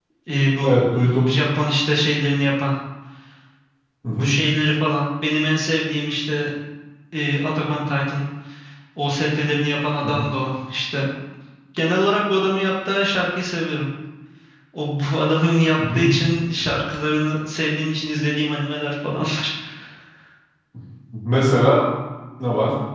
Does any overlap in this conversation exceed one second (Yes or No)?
No